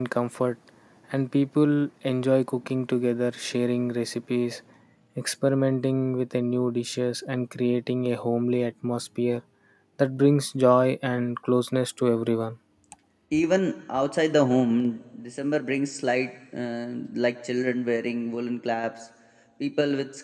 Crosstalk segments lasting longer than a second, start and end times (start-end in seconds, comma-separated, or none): none